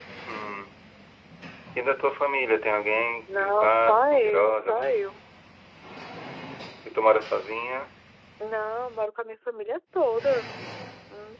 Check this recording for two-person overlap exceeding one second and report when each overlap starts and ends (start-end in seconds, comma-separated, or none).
3.3-4.8